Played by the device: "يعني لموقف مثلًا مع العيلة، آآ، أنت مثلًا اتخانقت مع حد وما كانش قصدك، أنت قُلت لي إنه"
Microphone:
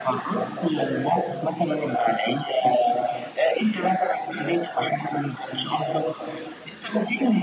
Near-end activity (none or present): none